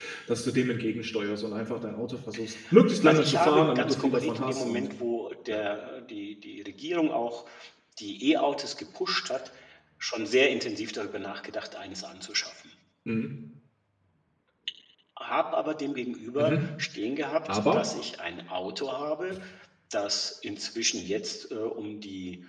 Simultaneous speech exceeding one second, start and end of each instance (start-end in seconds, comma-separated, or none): 3.0-4.9